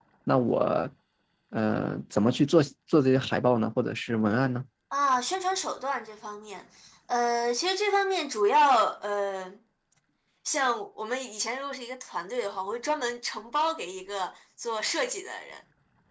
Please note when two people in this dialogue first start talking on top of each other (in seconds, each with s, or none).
none